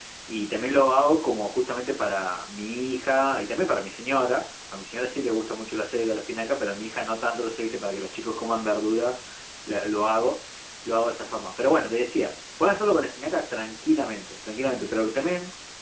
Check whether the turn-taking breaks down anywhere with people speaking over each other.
No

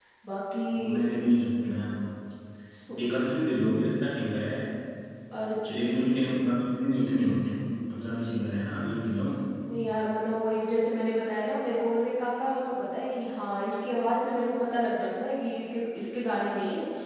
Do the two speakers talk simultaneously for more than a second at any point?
No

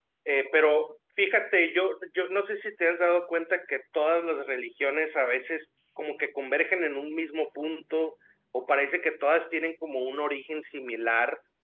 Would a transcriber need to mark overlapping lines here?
No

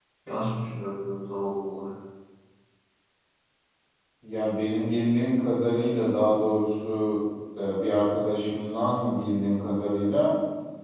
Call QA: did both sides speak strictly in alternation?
Yes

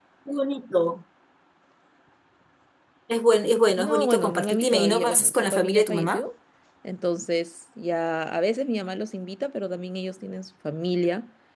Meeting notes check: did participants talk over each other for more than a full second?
Yes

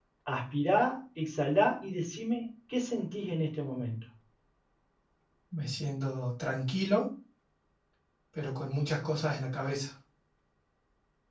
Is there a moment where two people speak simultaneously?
No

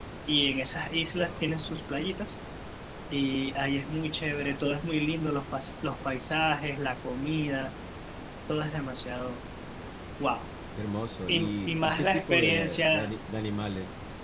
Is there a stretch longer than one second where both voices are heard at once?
Yes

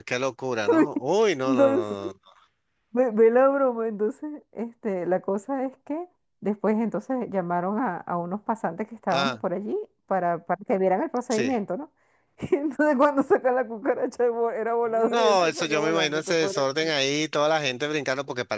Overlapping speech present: Yes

